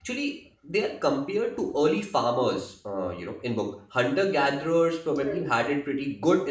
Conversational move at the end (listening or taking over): listening